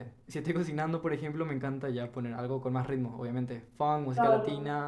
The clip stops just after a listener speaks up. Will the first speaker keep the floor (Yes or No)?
No